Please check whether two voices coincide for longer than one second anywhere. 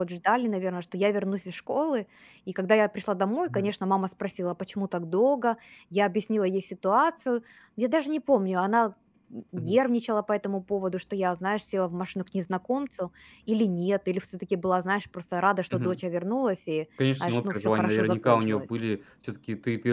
Yes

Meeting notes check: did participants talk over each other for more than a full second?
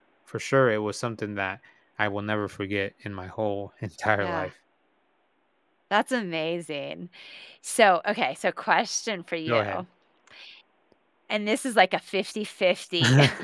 No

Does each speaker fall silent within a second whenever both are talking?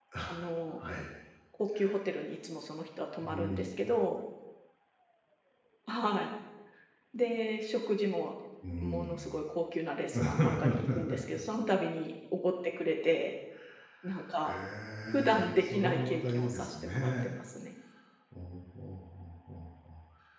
No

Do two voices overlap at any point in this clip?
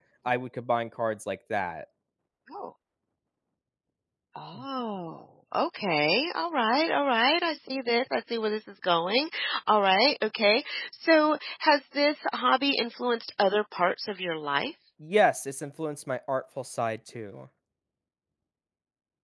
No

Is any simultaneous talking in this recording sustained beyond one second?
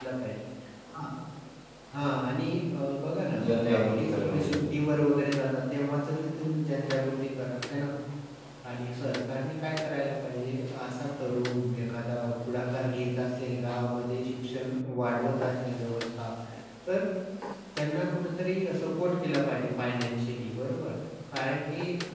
Yes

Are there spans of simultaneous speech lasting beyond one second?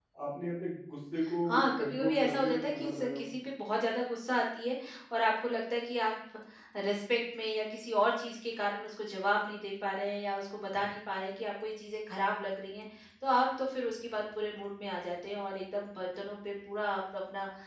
Yes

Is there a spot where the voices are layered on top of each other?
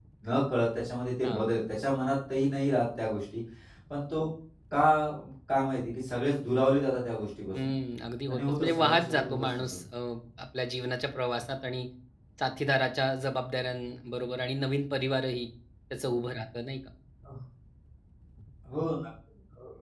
Yes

